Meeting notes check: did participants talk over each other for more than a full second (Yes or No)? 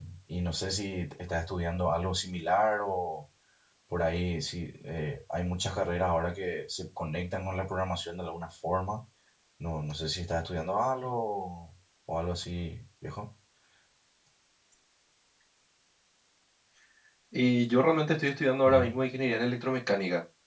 No